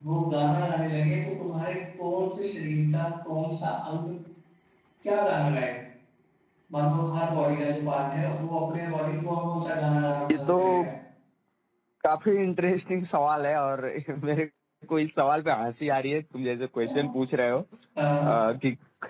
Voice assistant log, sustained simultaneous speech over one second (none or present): none